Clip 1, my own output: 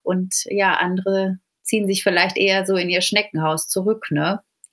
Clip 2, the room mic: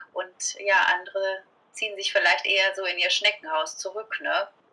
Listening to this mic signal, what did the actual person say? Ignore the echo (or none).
none